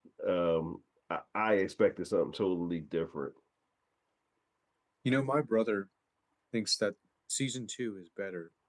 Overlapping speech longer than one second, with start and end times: none

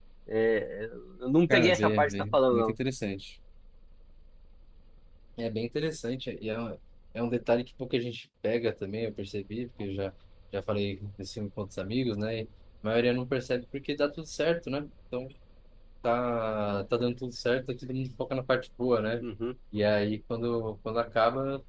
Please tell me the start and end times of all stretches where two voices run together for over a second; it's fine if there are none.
1.5-2.8

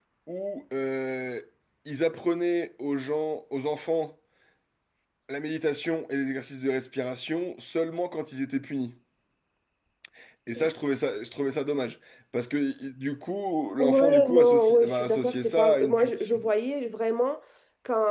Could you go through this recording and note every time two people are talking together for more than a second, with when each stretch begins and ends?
13.8-16.4

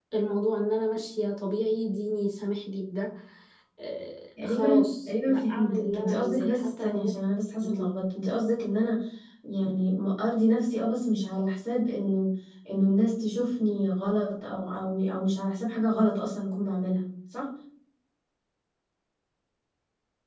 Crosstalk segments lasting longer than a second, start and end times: 4.4-7.1

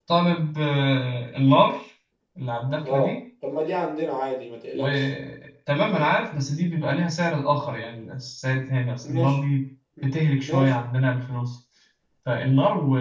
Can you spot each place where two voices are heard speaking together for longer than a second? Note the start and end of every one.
none

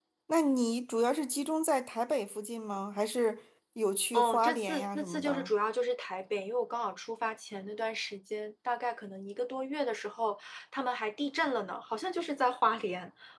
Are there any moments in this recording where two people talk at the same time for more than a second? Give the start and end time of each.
4.1-5.5

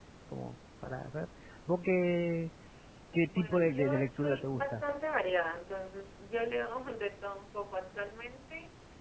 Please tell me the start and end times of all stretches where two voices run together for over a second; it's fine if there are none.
3.3-4.8

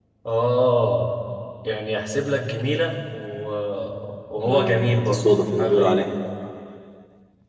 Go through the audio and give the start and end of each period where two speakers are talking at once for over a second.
4.4-6.0

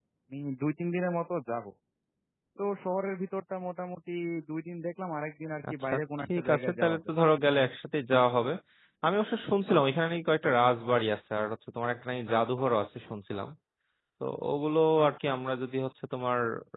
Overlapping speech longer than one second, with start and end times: 5.7-7.1

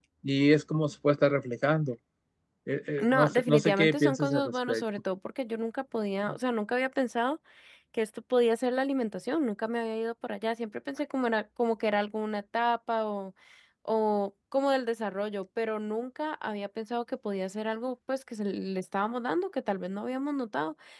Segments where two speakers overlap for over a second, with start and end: 3.0-4.8

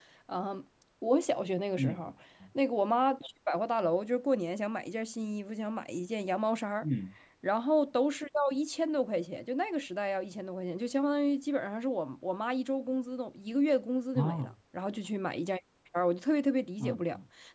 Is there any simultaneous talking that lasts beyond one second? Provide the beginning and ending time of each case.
none

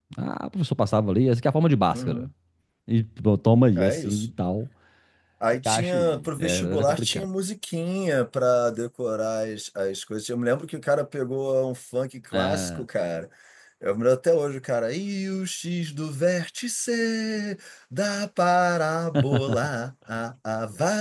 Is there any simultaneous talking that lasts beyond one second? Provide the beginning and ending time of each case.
5.6-7.3

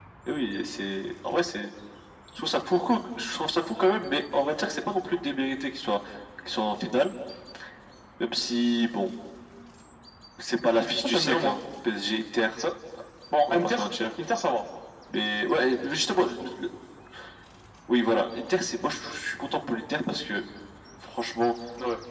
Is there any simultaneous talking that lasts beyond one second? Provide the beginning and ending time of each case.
none

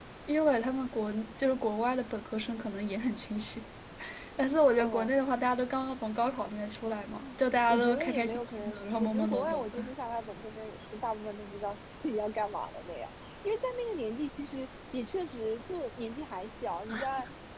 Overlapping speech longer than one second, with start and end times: 7.7-9.8

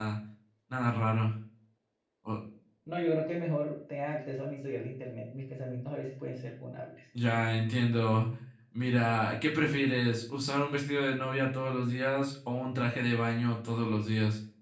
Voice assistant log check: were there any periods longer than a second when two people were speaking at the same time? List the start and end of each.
none

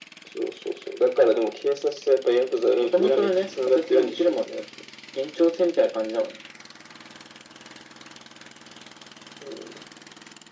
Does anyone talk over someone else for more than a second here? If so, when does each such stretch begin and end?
2.7-4.4

